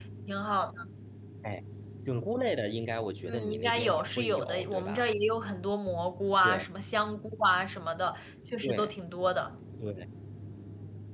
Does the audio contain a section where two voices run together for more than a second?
Yes, from 3.2 s

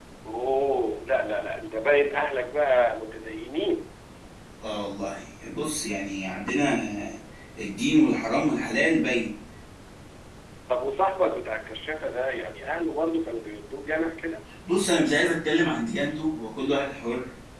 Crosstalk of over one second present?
No

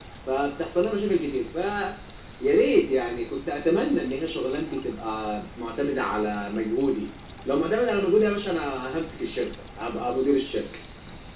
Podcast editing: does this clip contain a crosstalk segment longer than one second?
No

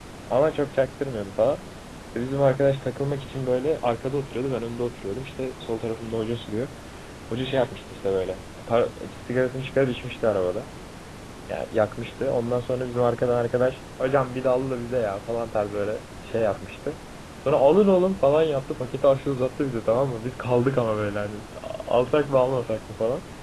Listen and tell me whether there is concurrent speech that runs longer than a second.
No

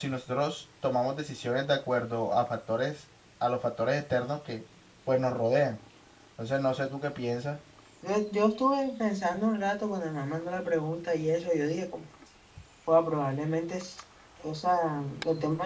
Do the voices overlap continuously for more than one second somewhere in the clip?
No

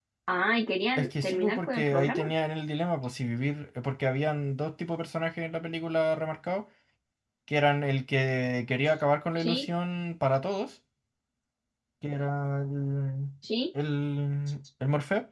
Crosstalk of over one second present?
Yes, from 1.0 s

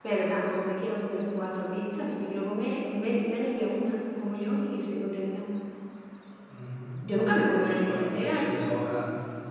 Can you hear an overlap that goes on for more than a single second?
Yes, from 7.0 s

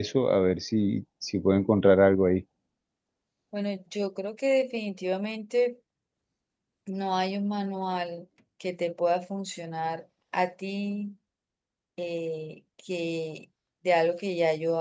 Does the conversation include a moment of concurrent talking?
No

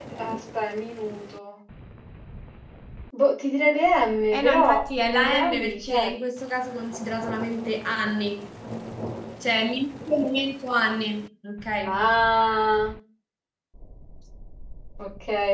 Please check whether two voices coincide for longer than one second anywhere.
Yes, from 4.3 s

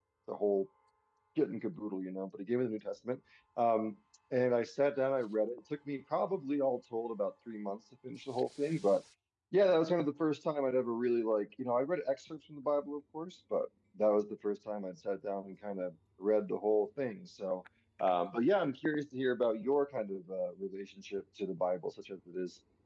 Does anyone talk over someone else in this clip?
No

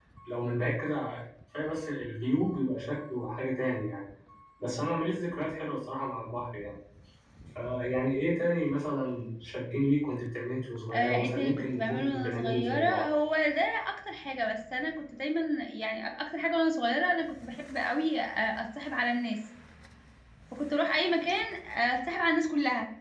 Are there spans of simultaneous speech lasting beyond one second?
Yes, from 10.9 s

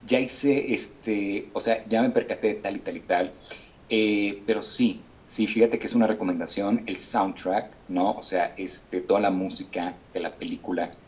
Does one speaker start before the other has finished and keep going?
No

